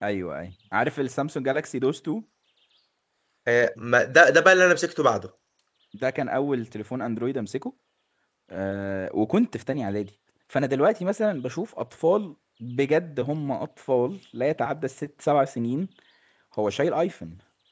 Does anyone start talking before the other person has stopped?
No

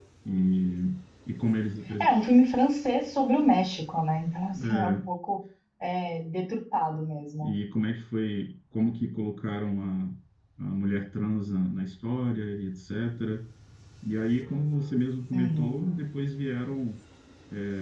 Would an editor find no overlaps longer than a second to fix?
Yes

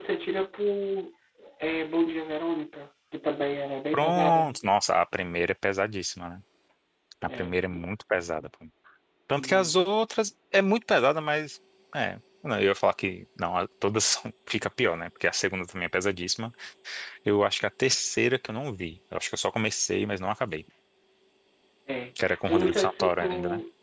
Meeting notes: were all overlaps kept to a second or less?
No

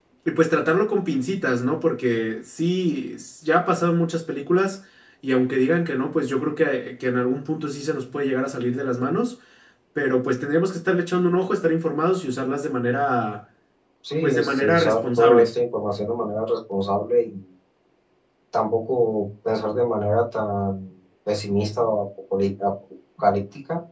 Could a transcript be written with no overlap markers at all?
No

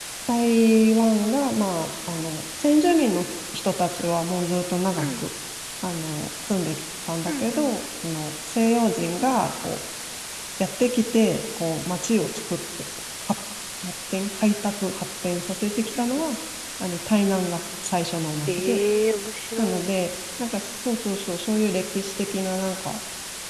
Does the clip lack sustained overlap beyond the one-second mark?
Yes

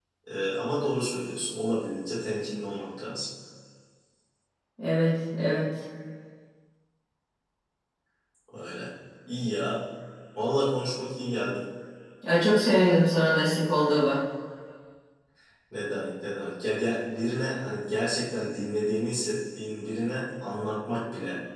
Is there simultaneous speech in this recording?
No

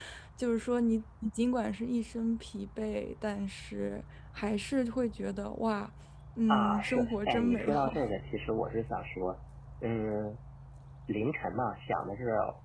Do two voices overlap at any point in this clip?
Yes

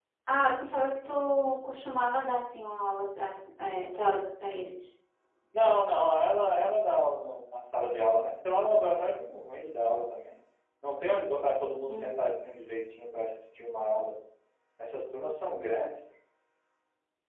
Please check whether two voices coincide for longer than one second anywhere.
No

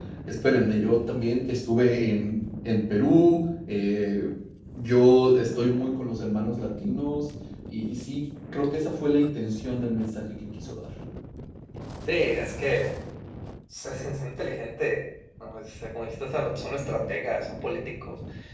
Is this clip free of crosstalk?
Yes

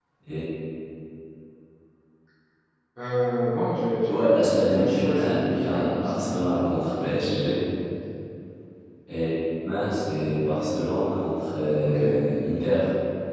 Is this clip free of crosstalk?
No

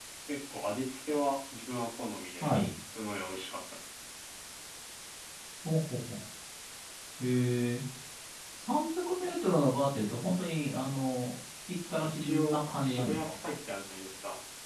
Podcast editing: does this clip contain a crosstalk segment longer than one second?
Yes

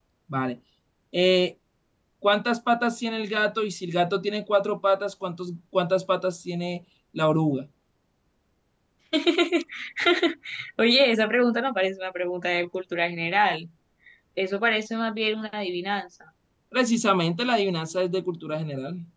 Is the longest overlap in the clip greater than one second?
No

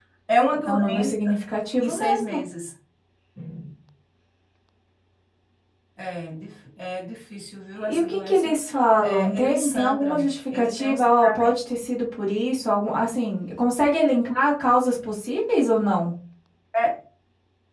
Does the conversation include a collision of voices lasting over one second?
Yes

